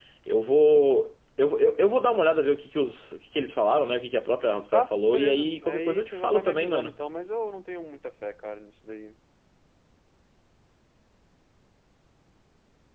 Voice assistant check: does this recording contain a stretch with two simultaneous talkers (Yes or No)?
Yes